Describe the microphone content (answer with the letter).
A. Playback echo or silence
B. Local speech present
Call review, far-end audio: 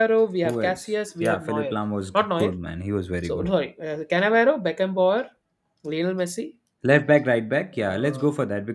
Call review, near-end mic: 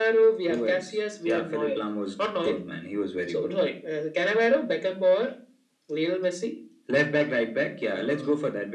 A